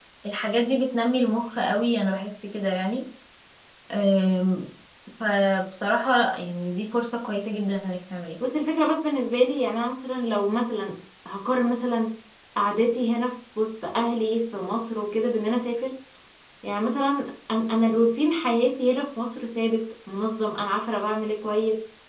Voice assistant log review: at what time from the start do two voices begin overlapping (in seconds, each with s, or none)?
none